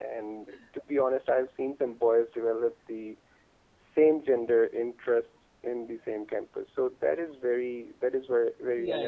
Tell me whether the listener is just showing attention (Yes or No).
No